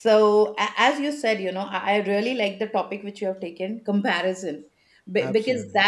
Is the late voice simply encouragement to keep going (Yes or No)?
Yes